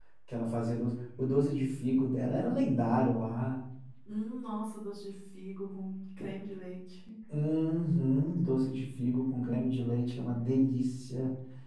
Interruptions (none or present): none